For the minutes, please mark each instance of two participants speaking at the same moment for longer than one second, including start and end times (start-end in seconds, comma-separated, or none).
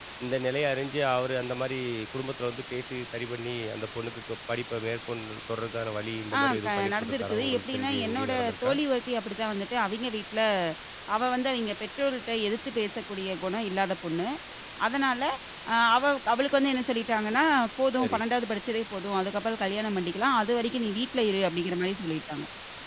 6.4-8.7